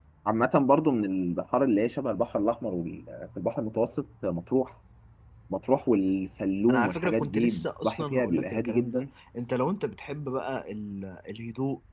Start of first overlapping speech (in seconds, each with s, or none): 6.7 s